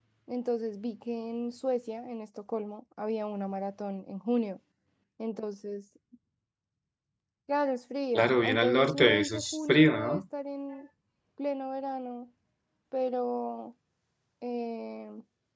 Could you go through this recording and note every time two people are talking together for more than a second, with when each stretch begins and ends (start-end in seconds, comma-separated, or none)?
8.1-10.2